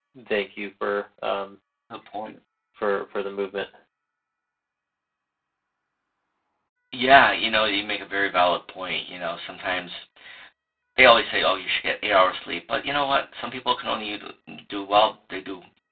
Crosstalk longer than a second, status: none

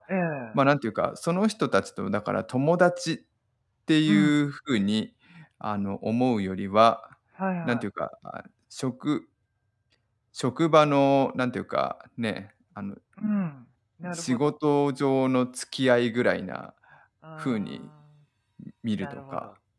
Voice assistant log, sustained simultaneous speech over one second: none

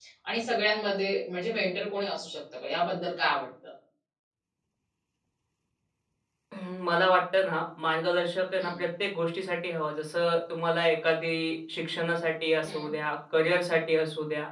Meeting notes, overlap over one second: none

